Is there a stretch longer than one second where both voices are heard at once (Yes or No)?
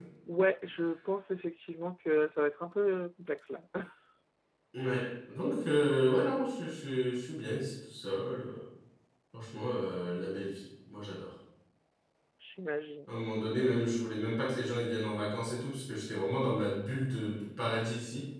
No